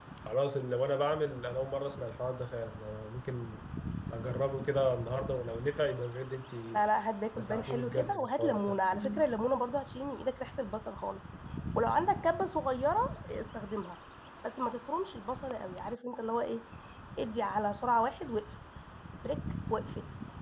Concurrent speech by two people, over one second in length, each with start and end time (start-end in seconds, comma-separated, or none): 7.4-8.8